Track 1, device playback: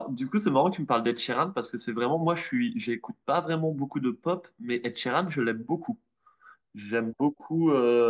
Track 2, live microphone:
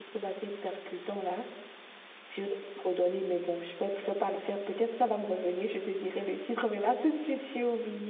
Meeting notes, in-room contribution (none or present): present